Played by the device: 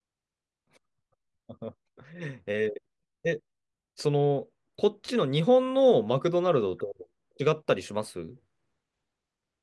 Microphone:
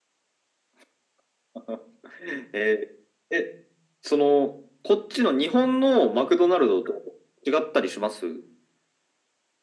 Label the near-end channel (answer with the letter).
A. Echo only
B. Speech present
A